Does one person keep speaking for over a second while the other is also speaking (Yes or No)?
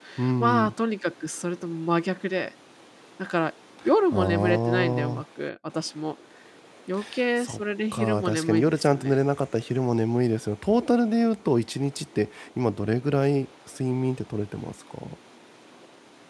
Yes